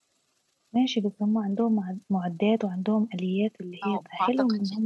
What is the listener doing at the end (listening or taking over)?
taking over